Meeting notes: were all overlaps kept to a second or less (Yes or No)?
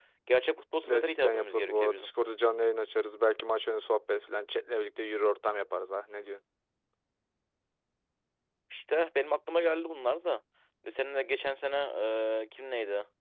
No